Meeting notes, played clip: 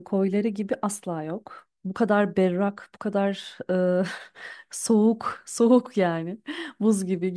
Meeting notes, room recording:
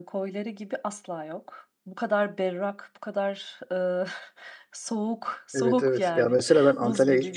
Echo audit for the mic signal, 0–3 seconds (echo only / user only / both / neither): echo only